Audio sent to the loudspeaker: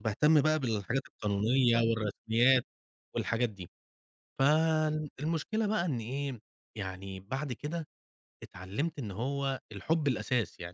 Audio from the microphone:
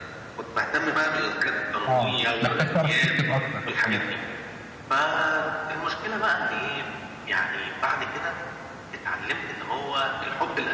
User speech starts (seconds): 1.9 s

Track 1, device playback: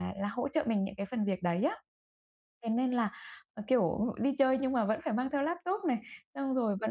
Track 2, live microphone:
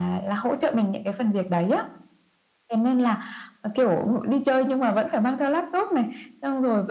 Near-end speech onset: none

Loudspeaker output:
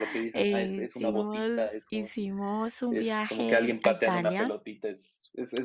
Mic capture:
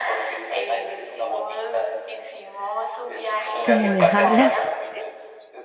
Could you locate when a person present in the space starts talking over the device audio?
3.6 s

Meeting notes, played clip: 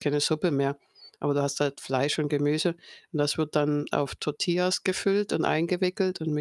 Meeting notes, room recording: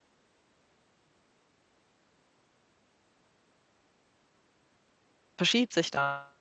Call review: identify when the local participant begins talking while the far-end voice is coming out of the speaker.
5.4 s

